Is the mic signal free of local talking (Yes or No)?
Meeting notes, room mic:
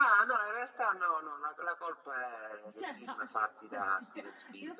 No